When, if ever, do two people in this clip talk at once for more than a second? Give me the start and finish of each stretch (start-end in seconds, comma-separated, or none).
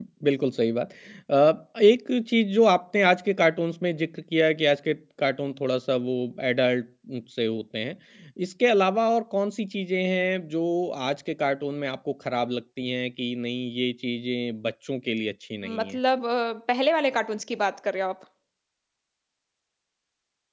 none